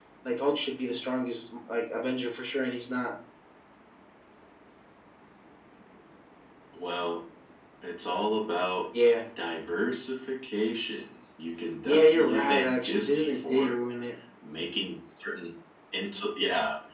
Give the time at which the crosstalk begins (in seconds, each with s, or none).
11.8 s